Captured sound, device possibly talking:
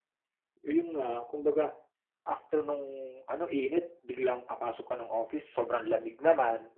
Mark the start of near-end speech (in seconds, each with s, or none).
none